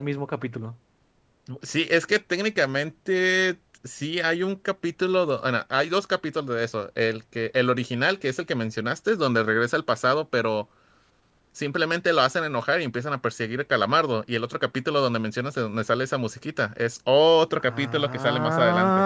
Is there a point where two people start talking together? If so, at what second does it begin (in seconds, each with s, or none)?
17.6 s